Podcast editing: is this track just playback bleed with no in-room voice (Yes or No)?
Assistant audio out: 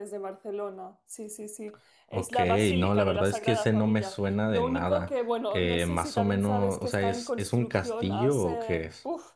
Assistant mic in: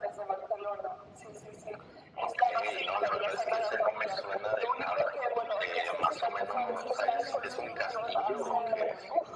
No